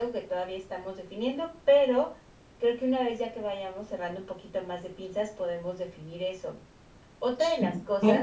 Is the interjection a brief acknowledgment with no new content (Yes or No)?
Yes